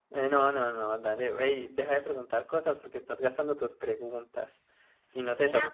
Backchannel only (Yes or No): No